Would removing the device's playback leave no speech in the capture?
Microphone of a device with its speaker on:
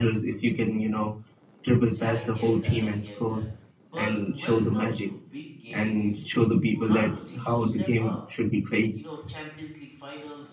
No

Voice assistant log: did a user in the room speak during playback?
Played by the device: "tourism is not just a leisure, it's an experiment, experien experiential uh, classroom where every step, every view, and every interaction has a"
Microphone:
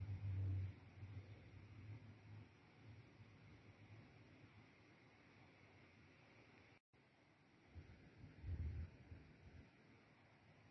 No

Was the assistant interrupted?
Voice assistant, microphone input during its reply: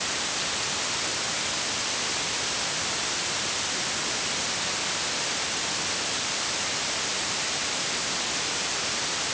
No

